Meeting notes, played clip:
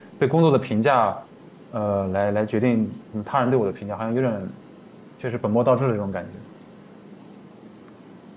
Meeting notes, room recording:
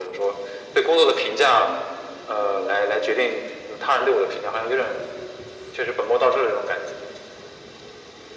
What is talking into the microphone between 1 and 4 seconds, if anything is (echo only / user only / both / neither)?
echo only